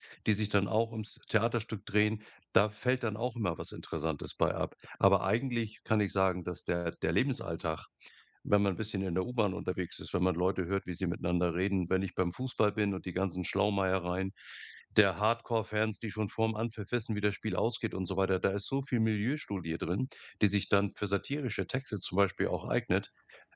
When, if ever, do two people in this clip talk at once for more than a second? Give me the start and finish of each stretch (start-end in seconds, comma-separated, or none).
none